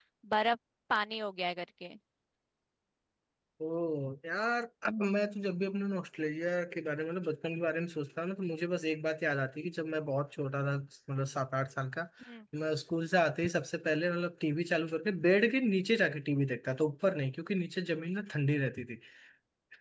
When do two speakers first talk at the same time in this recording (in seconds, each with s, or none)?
none